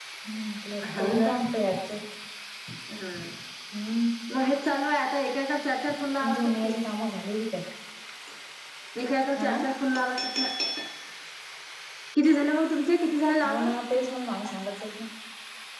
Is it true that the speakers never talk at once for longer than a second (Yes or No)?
Yes